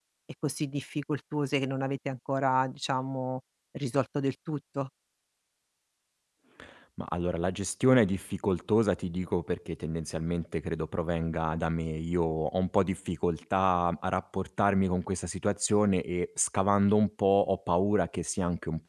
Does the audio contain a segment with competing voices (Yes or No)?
No